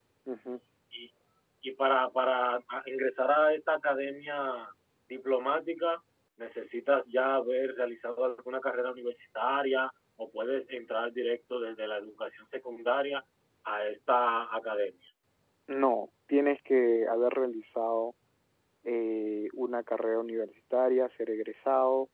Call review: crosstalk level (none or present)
none